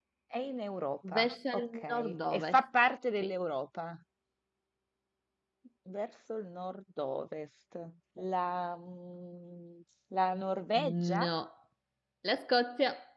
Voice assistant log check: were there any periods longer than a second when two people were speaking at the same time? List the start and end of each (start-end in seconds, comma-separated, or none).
1.1-2.6